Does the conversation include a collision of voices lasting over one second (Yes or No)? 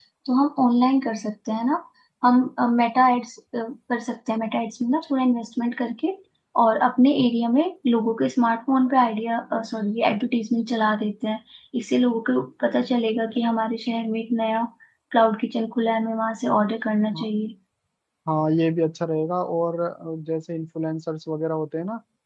No